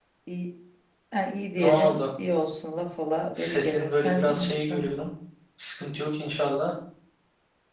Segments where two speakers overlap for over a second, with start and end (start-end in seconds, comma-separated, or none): 3.4-4.9